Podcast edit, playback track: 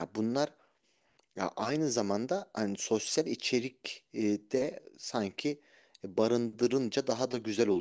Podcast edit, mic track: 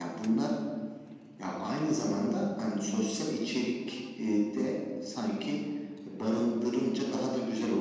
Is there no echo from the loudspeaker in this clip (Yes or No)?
No